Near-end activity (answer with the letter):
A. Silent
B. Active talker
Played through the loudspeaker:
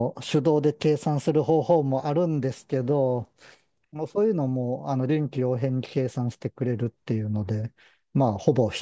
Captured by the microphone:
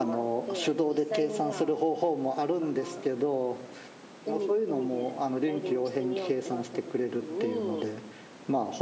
B